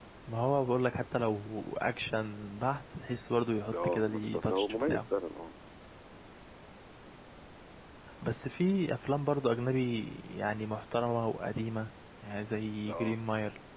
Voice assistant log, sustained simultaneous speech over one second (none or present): present